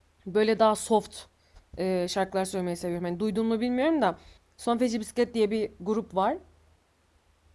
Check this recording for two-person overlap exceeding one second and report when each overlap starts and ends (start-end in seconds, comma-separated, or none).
none